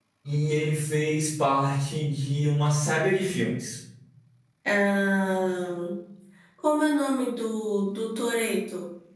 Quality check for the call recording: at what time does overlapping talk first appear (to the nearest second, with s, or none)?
none